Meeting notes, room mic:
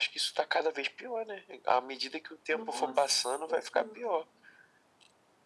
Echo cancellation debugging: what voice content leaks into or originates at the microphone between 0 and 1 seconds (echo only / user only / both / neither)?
echo only